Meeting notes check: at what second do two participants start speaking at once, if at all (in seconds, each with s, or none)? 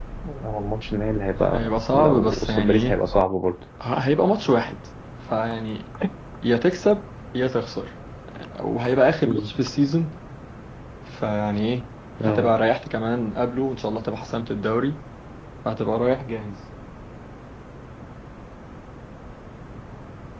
1.5 s